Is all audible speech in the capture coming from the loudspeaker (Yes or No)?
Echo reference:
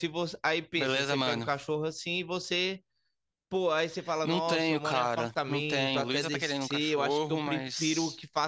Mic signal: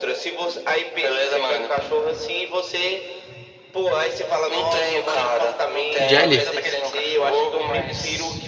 No